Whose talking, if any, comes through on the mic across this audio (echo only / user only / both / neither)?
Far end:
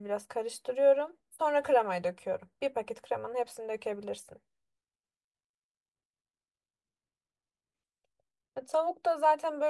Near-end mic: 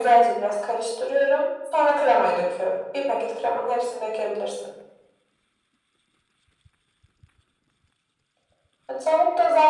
echo only